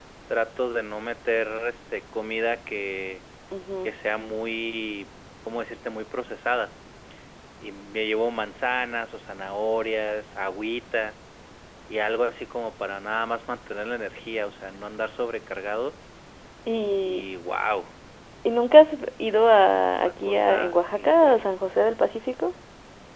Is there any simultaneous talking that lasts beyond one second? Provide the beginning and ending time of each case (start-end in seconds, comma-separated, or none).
19.9-21.5